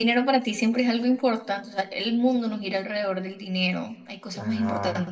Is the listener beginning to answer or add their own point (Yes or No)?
Yes